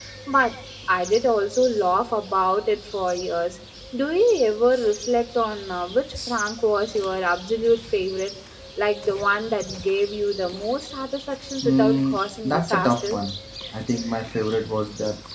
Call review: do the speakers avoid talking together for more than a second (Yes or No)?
No